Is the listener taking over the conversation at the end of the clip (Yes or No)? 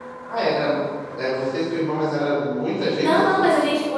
Yes